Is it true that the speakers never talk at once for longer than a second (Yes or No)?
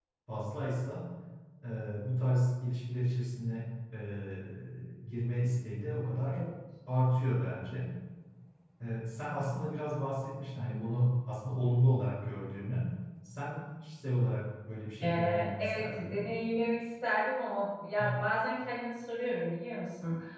No